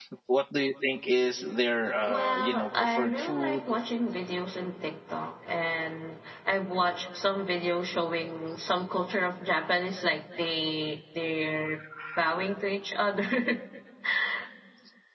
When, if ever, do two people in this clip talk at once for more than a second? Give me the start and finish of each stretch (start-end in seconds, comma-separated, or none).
2.1-3.7